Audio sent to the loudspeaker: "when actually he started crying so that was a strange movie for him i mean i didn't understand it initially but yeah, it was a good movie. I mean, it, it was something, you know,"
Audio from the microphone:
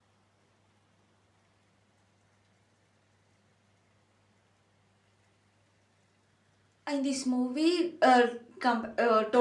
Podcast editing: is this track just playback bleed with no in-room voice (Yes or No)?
No